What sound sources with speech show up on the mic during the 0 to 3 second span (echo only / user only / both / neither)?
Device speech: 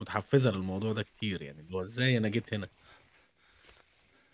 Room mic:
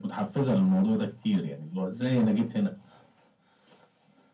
echo only